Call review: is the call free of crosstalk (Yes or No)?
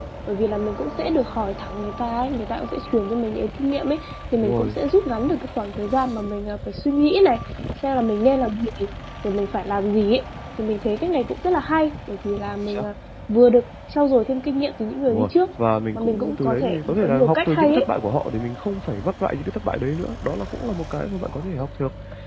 No